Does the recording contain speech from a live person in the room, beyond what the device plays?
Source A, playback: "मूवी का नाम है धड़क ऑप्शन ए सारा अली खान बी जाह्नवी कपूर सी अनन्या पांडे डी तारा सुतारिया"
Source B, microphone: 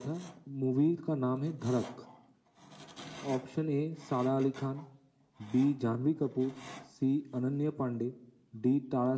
No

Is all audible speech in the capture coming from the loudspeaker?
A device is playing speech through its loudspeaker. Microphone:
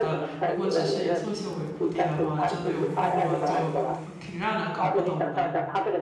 No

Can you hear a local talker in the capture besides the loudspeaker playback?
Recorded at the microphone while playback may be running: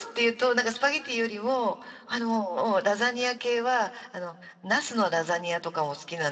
No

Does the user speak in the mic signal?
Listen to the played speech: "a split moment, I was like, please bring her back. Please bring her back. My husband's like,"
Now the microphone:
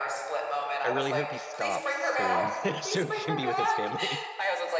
Yes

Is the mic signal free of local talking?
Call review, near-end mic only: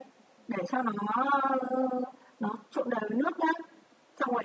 Yes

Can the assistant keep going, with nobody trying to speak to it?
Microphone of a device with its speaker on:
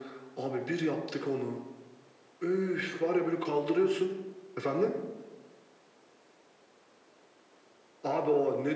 Yes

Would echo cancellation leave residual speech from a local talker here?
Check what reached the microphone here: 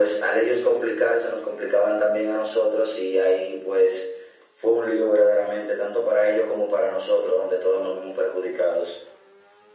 No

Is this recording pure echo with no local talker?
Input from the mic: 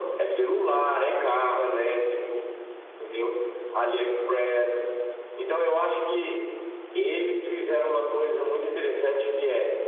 Yes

